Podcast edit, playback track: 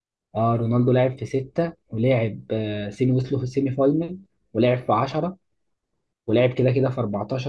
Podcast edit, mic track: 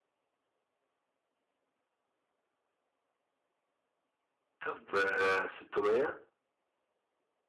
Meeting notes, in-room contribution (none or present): present